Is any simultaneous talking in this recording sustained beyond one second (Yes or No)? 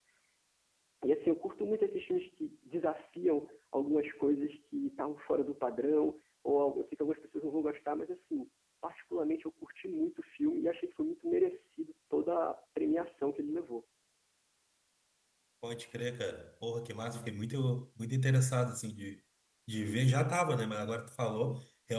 No